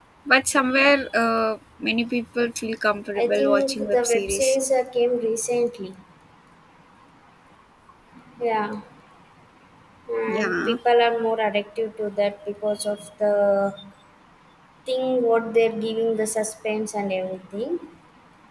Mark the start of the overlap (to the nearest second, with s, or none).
3 s